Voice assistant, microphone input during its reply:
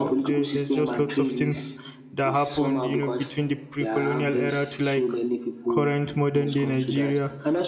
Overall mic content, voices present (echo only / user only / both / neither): both